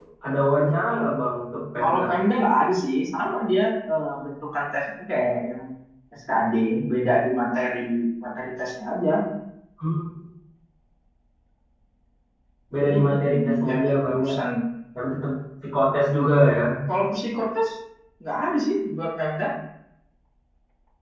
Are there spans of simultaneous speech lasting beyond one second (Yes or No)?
Yes